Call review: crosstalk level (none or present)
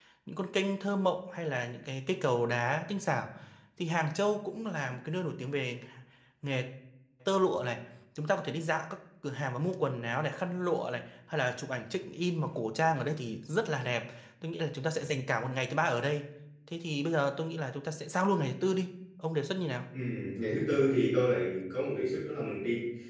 none